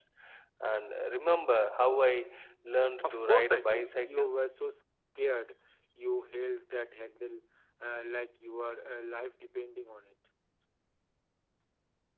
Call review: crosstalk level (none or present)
present